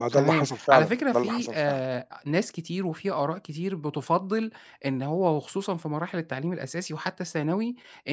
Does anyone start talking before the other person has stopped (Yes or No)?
Yes